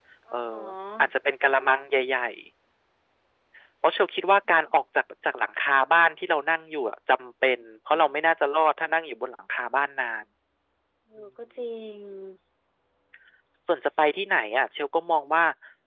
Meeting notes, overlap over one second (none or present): none